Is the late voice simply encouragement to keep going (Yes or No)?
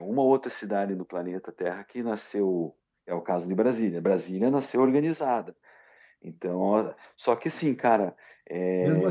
No